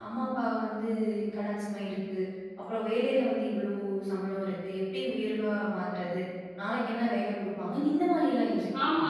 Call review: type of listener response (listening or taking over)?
taking over